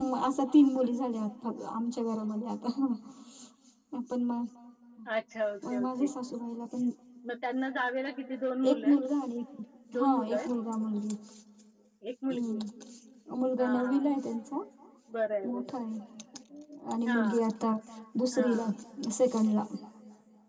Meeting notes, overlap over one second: none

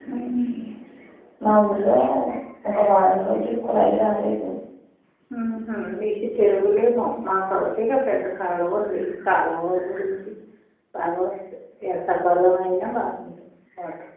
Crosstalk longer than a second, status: none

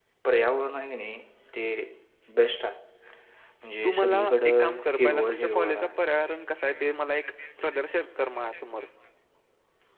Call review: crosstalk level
present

